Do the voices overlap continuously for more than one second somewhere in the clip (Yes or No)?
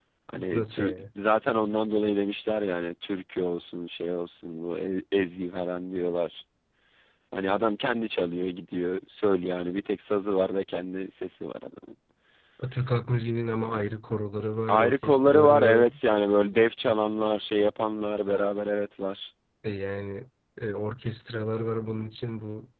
Yes